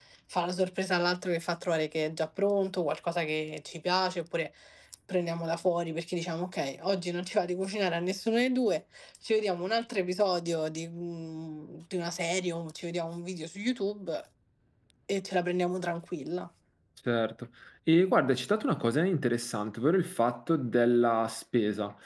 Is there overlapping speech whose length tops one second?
No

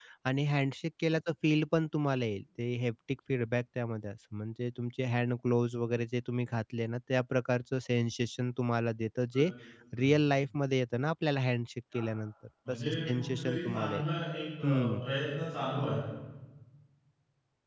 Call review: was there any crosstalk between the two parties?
Yes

